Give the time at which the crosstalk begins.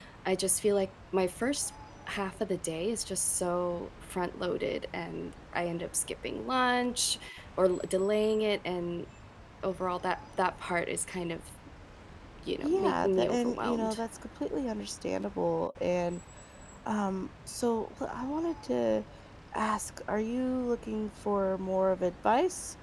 12.6 s

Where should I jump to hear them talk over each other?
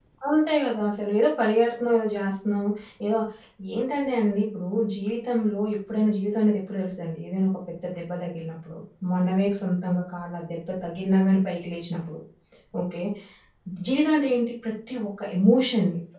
none

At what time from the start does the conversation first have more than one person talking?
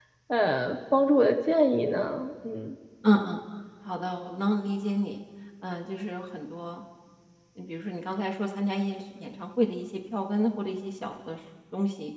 none

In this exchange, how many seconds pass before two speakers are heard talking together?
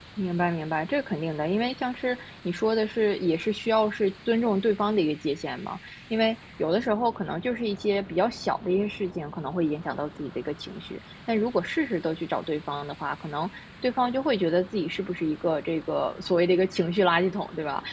none

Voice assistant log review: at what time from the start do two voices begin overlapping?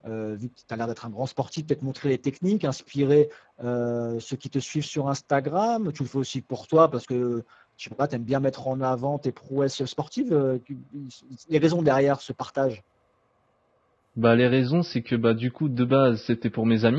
none

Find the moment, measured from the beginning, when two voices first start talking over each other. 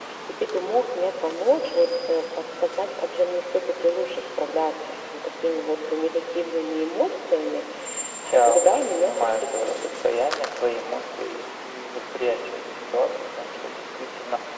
8.4 s

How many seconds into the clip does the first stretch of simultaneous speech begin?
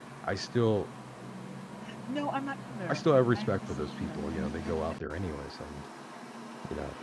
2.9 s

